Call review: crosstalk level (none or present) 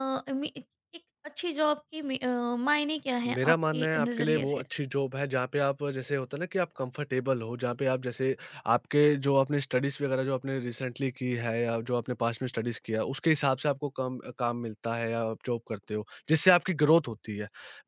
present